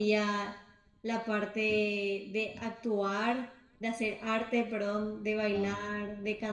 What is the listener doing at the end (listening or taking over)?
listening